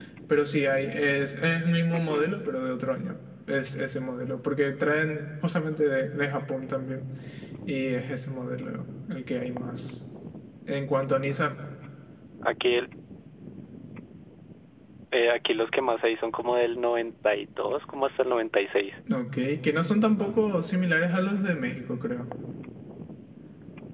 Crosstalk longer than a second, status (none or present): none